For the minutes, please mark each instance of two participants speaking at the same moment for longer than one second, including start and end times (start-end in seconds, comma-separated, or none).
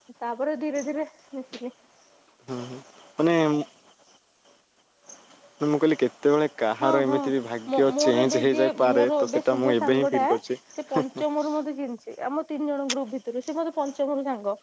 7.7-10.2